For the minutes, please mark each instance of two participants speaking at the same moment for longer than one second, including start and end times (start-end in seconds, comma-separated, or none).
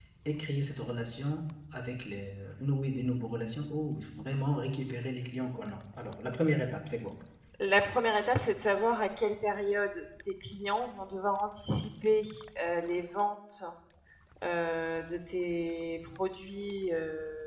none